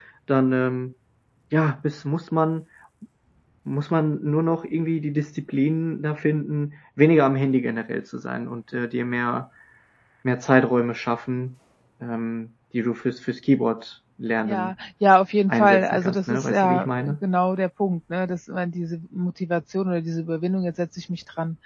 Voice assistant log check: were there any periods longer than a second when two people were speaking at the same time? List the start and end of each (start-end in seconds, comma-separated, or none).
15.5-17.2